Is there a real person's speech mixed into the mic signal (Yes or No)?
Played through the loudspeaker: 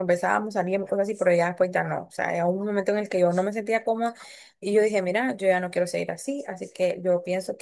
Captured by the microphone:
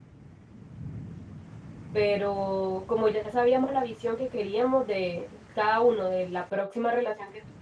Yes